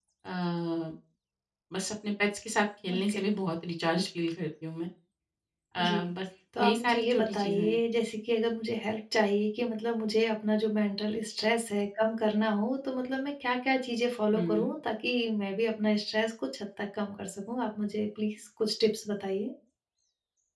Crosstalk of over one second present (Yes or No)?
Yes